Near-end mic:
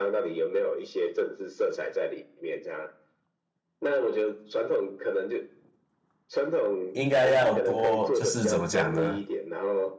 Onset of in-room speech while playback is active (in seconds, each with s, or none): 6.9 s